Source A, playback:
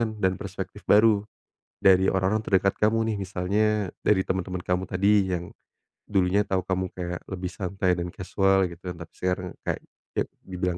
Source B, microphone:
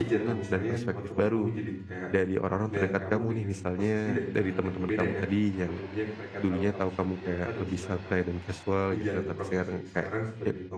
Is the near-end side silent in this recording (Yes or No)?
No